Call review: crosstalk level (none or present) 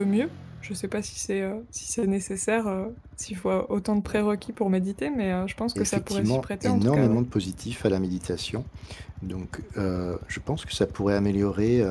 present